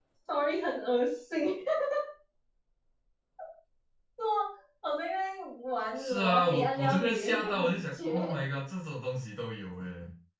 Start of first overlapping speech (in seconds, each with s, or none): 6.0 s